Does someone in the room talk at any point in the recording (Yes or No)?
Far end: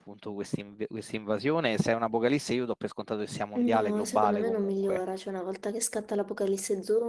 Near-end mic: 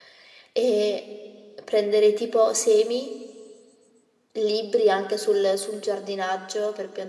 Yes